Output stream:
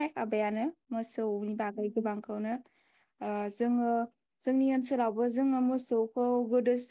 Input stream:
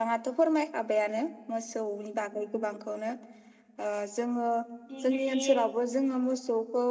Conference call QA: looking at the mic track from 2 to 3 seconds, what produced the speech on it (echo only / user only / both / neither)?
echo only